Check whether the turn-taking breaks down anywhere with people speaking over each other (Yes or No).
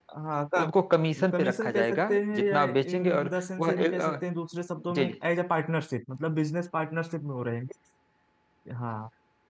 Yes